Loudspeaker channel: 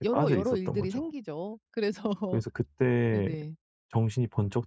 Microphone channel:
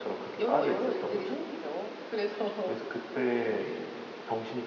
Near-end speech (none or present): none